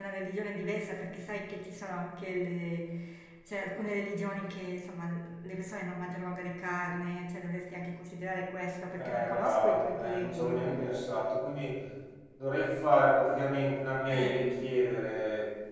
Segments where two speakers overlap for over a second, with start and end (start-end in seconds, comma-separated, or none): 9.0-10.7